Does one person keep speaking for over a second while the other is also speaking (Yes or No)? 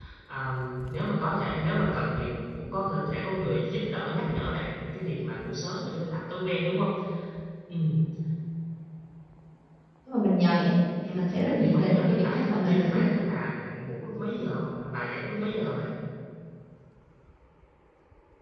Yes